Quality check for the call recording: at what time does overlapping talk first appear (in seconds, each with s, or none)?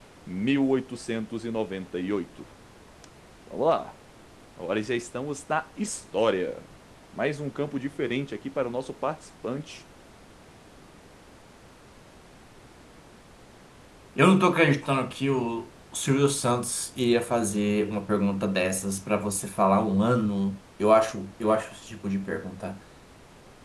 none